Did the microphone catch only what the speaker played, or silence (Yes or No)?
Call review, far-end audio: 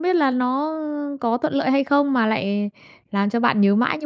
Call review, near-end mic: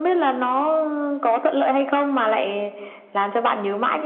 Yes